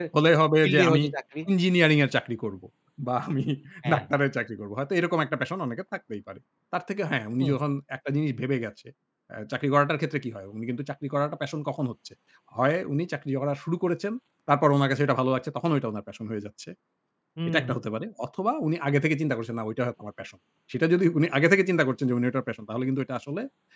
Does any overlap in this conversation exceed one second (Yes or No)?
No